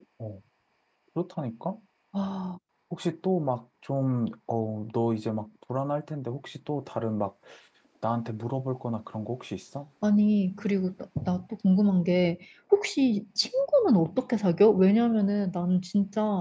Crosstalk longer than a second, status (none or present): none